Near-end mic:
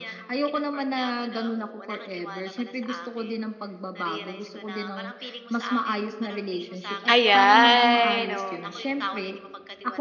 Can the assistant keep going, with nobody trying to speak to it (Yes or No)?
No